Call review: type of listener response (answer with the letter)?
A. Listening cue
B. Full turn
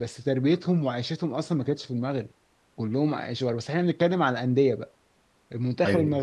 A